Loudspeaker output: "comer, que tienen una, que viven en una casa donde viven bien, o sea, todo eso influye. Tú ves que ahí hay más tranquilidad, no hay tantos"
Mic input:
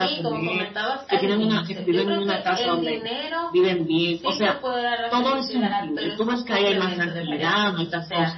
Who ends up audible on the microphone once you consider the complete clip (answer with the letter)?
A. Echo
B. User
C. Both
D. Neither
C